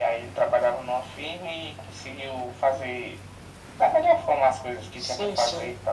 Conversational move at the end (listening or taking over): taking over